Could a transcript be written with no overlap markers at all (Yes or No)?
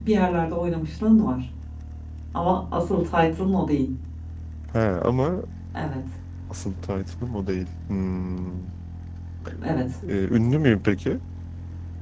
Yes